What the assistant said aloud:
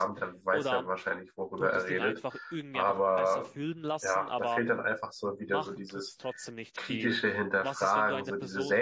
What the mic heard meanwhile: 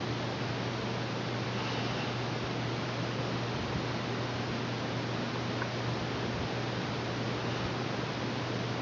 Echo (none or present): none